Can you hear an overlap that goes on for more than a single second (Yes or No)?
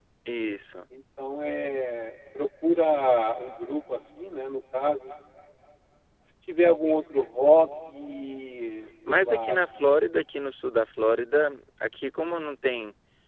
No